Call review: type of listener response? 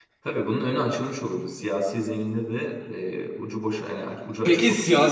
taking over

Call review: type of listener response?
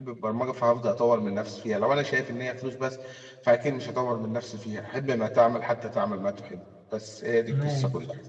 taking over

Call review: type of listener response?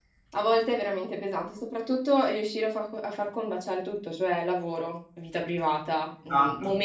listening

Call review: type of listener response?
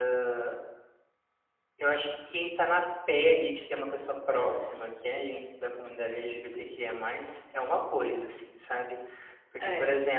listening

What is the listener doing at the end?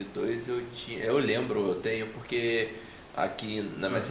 listening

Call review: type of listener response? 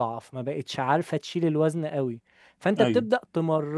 listening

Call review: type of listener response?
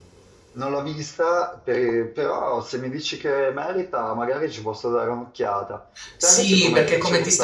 taking over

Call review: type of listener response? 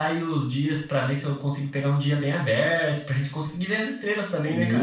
taking over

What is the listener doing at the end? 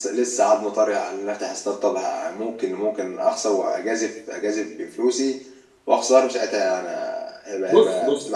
taking over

